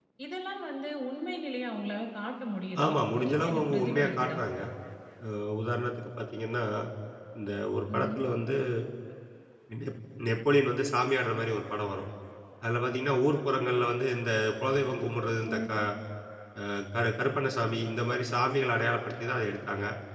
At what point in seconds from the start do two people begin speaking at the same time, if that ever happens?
2.8 s

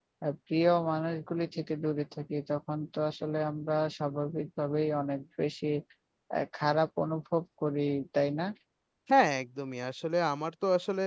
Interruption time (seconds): none

